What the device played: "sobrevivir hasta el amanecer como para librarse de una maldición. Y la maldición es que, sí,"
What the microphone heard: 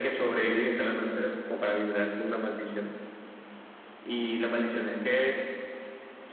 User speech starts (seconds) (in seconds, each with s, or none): none